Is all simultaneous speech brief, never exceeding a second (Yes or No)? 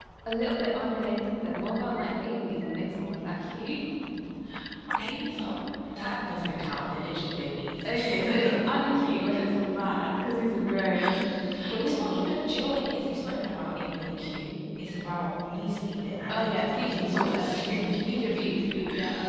No